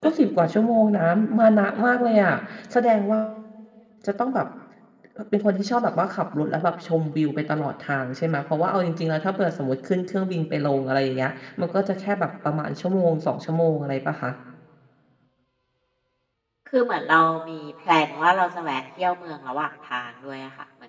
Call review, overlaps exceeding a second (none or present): none